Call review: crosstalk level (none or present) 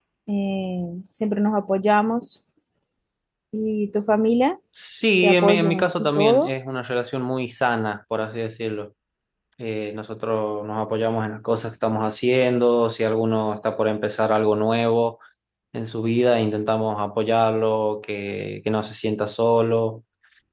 present